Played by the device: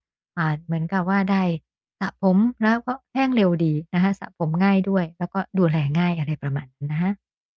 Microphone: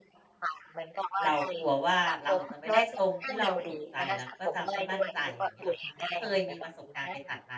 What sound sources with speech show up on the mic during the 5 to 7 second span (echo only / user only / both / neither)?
both